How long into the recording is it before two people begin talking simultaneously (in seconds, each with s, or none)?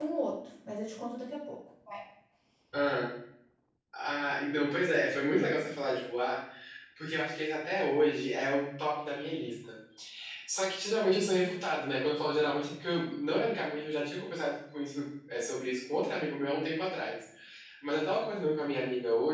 none